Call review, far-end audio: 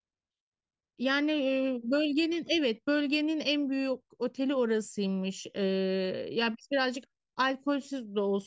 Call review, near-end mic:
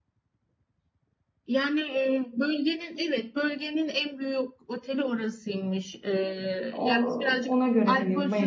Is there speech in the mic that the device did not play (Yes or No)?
Yes